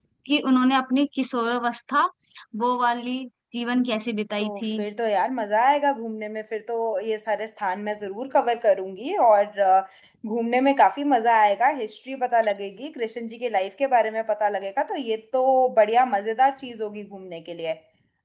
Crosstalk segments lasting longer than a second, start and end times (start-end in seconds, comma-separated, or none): none